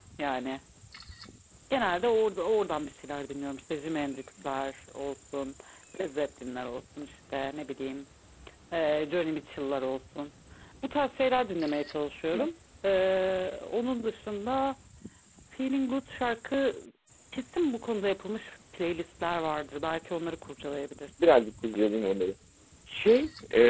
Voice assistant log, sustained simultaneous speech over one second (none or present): none